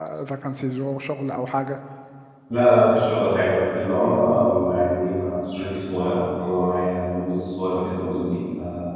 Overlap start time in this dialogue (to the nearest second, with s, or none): none